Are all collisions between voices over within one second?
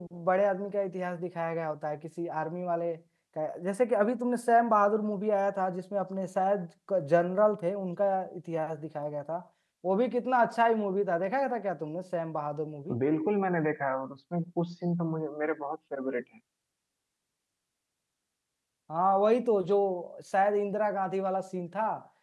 Yes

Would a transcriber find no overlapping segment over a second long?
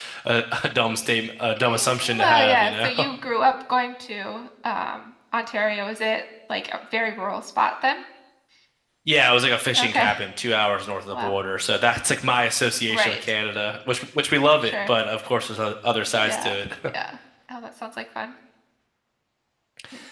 No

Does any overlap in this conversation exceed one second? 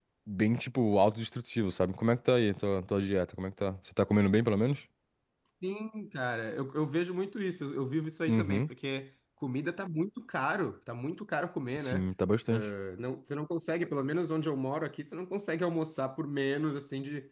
No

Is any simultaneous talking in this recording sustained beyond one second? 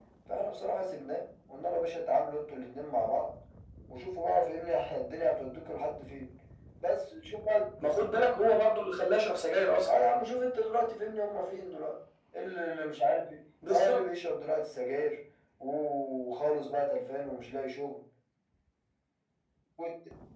No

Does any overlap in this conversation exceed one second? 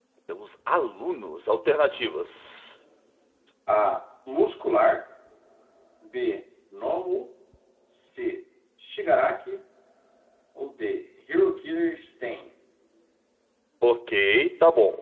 No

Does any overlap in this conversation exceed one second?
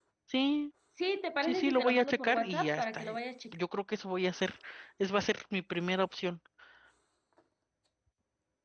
Yes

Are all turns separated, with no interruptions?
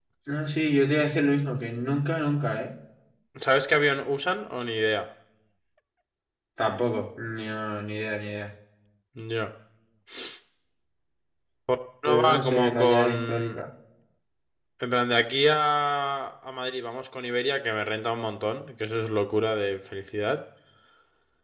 No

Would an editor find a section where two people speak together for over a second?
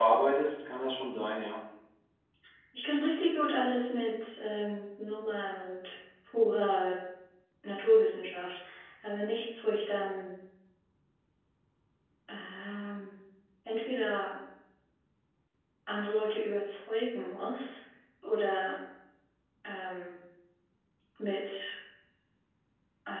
No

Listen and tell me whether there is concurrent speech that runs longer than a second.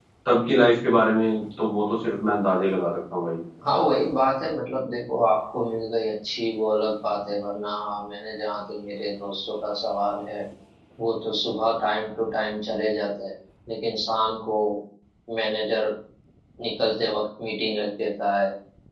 No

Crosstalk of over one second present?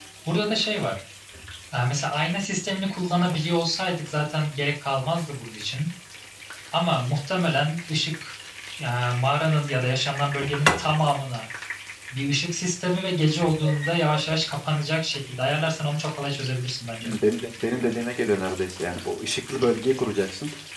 No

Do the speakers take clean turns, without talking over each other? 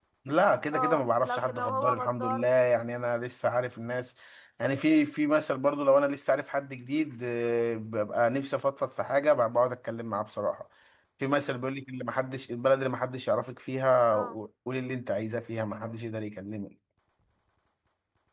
No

